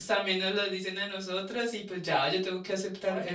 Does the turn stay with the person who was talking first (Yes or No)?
No